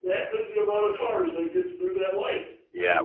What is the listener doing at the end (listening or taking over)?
taking over